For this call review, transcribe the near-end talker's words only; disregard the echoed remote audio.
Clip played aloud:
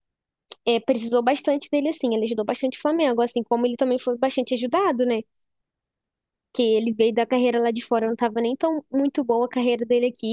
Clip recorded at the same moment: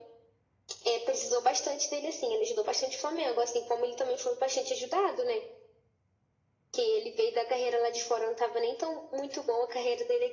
none

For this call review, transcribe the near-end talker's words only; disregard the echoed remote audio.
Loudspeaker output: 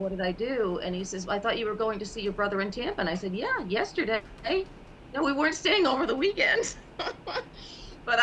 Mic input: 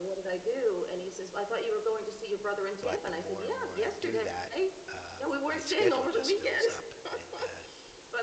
but the more and more I do that, um, my schedule just fills up, and uh,

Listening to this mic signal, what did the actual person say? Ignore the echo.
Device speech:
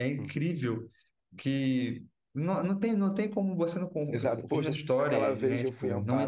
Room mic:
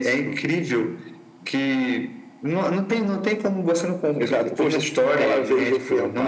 none

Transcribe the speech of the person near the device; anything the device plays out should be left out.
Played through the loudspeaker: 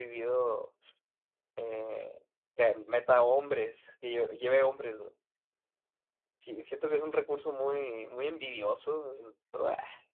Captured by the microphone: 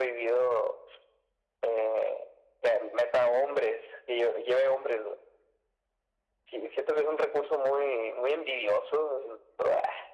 none

